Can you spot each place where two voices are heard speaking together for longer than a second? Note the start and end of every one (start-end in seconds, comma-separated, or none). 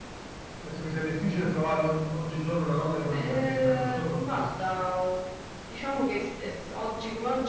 3.1-4.5